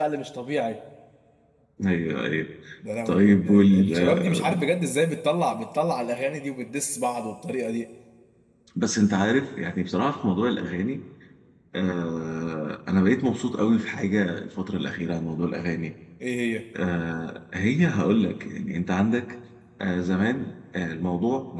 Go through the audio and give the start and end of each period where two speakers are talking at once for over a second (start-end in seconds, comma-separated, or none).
3.1-4.7